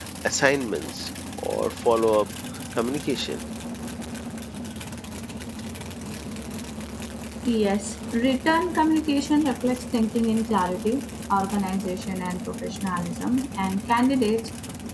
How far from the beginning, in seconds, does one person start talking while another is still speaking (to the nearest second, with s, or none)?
none